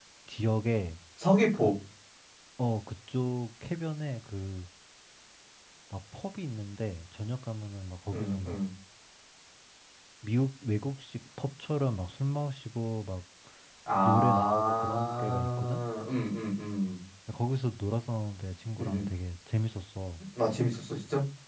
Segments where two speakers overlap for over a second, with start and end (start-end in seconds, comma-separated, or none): 14.0-15.8